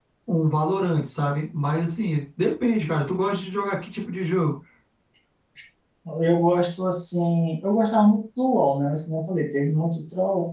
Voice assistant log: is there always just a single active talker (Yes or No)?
Yes